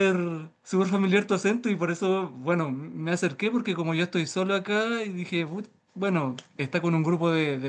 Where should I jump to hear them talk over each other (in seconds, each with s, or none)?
none